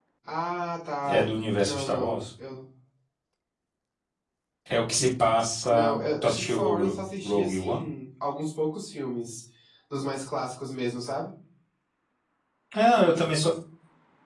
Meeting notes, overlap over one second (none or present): present